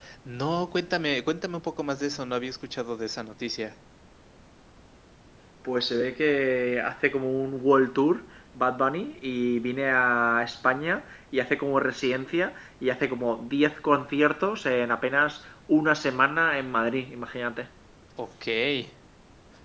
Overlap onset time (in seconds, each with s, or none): none